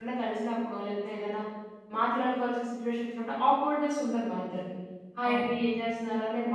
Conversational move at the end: listening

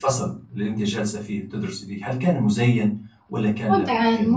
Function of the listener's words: taking over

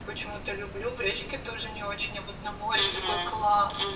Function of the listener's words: taking over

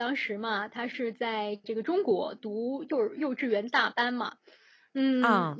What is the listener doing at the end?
listening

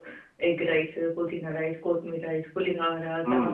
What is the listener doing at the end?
taking over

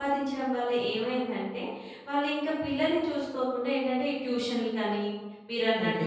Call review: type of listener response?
listening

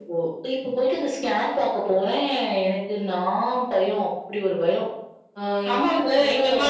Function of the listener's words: taking over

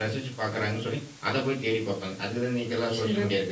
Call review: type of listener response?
taking over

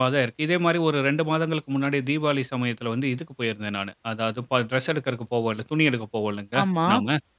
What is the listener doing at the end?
listening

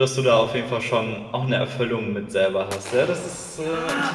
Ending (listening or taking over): taking over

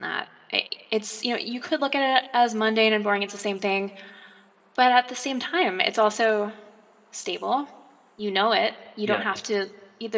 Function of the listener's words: listening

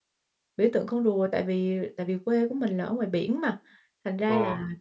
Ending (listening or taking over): listening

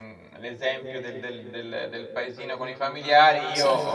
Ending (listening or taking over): listening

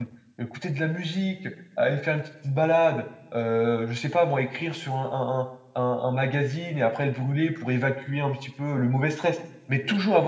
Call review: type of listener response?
listening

